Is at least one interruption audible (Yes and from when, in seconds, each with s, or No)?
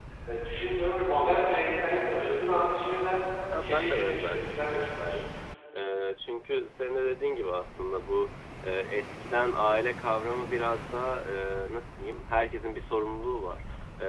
Yes, from 3.6 s